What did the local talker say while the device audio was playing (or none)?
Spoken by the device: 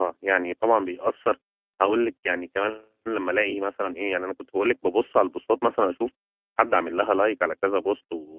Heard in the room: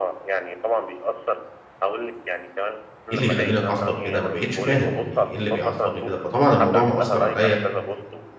إيه اللي يخلّيني أتعصّب كده ما بقيتش فاهم، يعني إيه اللي بيعصّبني كده، فطبعًا الموضوع مأثّر عليَّ